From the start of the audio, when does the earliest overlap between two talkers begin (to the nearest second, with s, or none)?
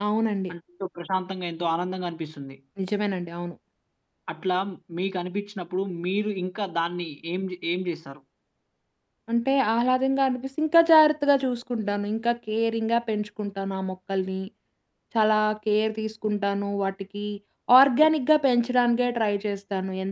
none